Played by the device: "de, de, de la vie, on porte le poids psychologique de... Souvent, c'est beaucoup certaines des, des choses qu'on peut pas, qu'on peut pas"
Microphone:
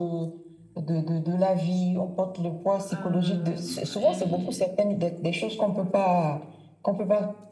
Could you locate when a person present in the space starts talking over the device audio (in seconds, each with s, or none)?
2.9 s